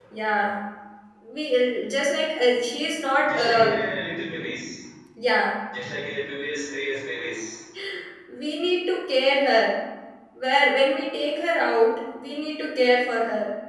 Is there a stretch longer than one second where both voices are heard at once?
No

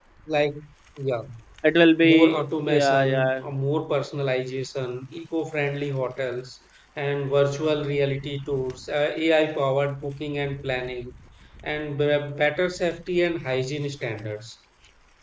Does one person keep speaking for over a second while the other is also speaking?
Yes, from 2.0 s

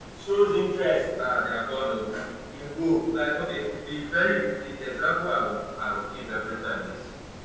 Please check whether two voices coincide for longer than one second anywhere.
No

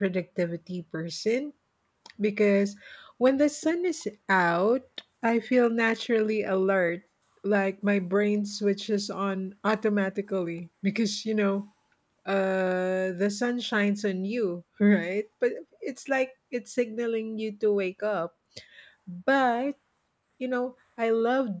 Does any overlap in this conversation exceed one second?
No

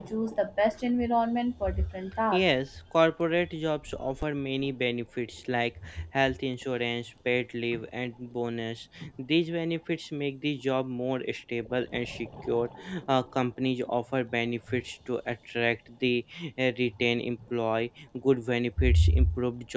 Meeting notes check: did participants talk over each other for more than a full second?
No

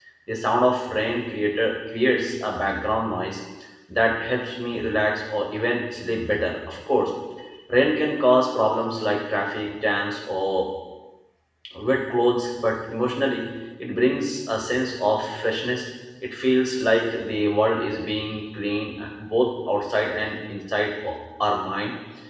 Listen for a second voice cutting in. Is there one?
No

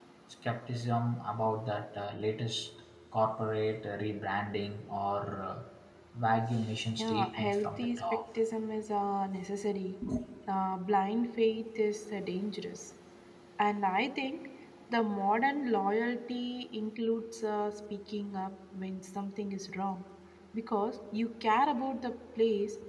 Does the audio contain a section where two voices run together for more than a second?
Yes, from 7.0 s

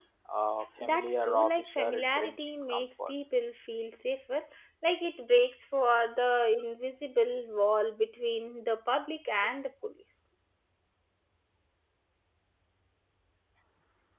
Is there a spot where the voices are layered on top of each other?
Yes, from 0.8 s

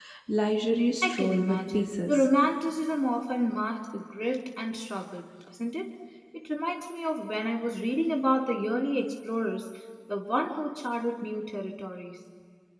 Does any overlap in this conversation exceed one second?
Yes, from 1.0 s

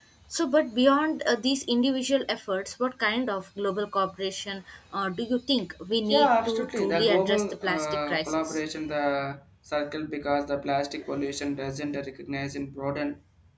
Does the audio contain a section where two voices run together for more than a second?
Yes, from 6.1 s

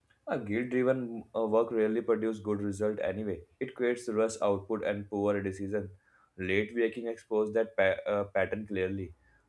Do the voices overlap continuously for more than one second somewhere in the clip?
No

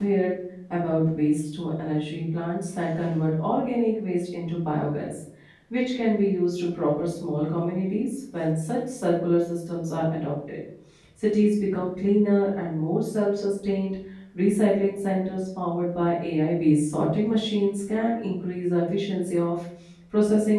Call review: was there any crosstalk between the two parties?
No

